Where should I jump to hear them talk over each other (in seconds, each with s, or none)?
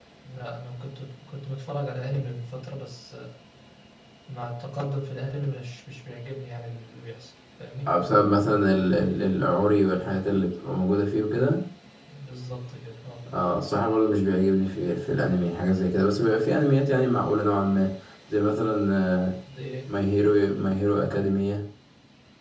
none